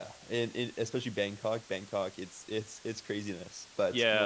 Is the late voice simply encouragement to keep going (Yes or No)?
No